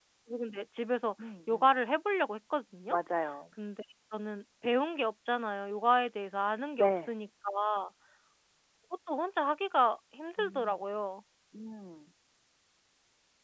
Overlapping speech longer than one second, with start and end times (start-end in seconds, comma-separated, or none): none